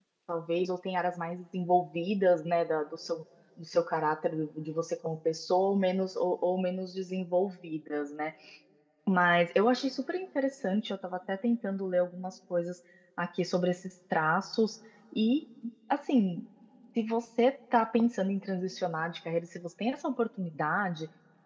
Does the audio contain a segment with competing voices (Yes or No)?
No